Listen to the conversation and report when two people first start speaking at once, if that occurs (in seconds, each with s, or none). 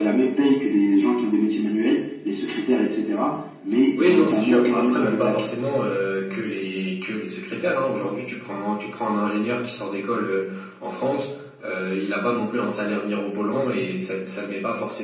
4.0 s